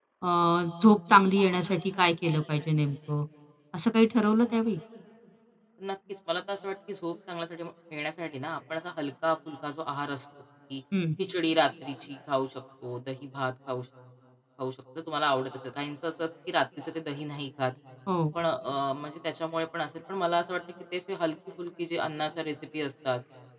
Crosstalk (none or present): none